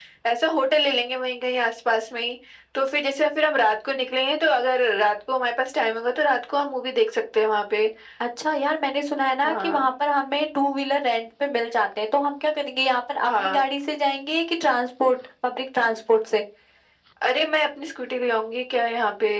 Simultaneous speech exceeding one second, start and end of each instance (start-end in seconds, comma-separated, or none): none